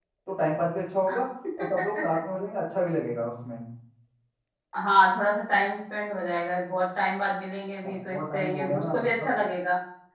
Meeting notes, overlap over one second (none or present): present